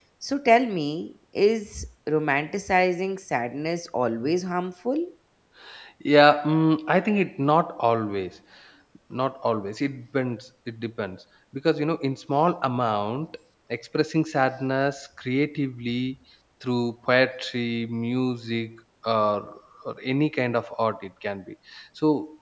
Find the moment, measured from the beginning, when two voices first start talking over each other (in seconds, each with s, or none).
none